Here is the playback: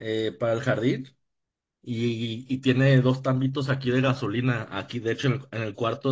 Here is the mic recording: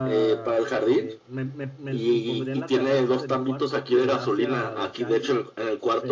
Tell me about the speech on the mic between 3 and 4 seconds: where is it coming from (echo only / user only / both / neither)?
both